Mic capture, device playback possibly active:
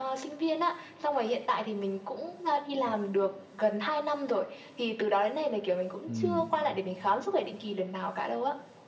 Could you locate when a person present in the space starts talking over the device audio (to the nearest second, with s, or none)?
6 s